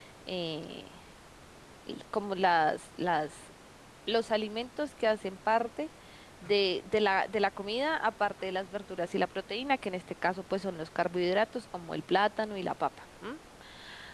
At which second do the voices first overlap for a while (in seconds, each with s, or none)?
none